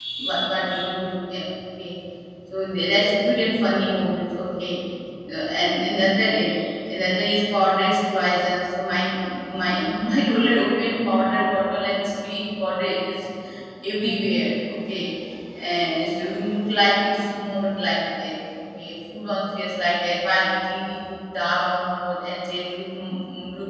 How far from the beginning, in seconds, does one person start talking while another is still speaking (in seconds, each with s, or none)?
none